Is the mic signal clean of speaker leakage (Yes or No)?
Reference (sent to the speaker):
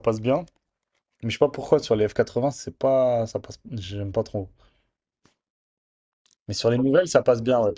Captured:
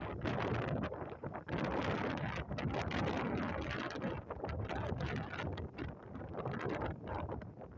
Yes